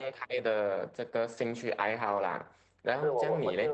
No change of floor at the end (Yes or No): No